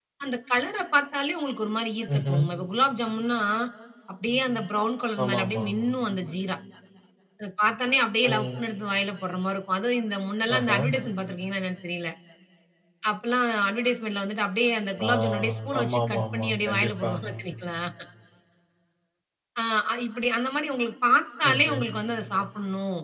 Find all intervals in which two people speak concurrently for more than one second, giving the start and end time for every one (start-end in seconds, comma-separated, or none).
15.8-17.1